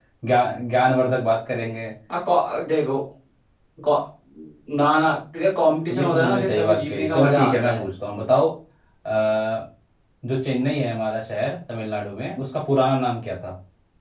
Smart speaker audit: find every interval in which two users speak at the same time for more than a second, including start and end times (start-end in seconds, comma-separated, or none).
5.9-7.8